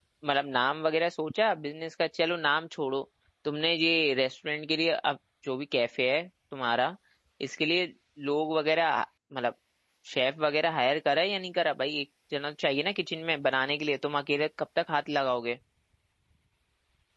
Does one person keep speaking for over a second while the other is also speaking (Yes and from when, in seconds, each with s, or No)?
No